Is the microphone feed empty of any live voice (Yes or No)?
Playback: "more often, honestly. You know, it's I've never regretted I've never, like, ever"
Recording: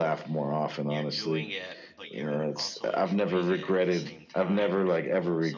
No